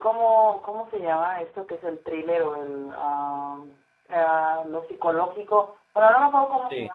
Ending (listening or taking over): listening